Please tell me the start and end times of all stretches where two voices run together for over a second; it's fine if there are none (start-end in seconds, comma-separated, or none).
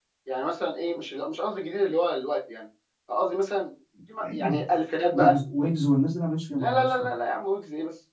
none